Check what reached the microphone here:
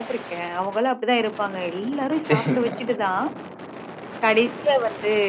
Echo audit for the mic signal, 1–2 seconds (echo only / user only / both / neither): echo only